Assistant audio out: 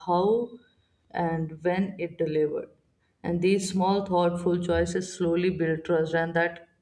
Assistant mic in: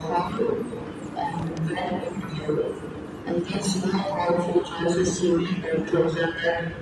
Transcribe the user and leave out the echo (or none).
none